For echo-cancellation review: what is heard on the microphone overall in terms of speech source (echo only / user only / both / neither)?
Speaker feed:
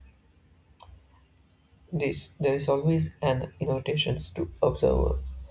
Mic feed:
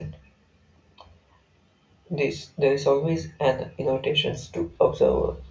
echo only